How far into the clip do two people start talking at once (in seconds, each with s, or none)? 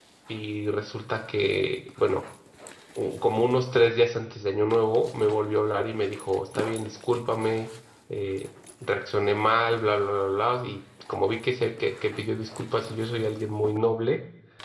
none